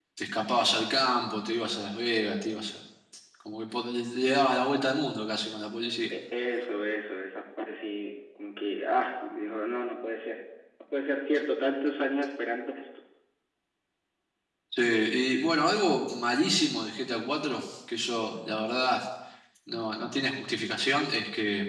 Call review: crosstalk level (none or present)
none